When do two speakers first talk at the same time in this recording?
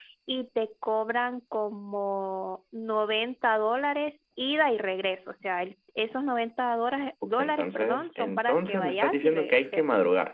7 s

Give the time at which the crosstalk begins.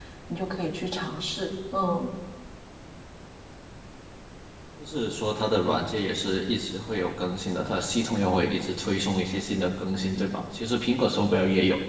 none

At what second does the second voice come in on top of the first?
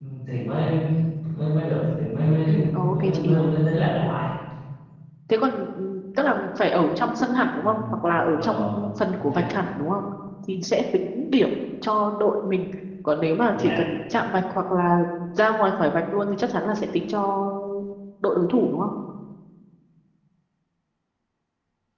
2 s

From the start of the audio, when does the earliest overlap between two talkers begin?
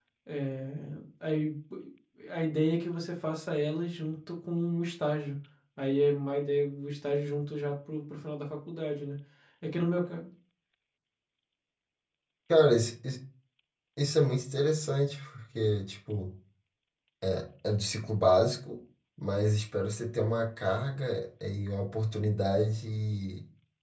none

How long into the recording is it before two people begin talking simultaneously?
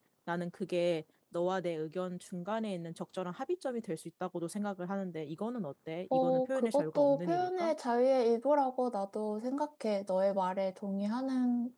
6 s

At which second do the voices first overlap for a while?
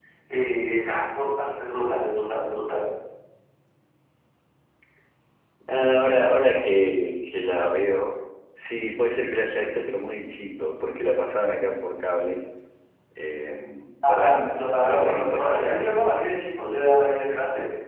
14 s

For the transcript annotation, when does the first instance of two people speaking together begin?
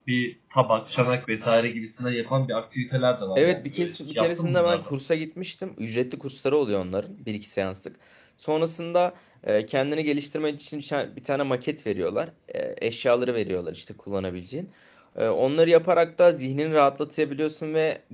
3 s

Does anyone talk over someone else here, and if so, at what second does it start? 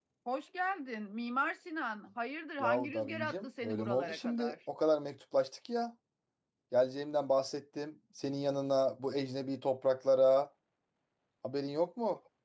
3 s

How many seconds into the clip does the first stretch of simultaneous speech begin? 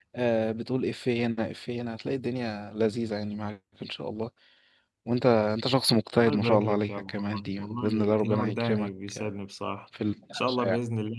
6 s

